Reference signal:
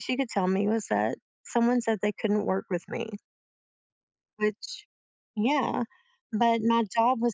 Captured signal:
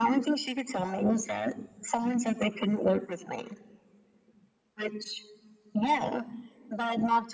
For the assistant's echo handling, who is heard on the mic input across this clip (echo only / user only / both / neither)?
echo only